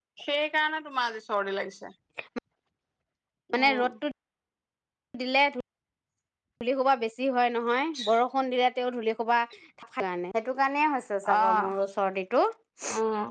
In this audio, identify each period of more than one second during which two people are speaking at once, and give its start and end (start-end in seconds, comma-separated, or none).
none